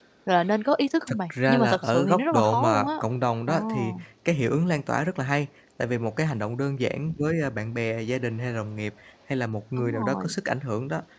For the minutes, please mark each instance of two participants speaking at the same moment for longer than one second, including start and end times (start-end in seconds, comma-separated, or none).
1.1-2.9